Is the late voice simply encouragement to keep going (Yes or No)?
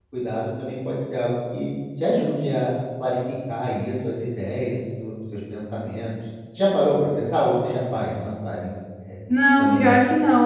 No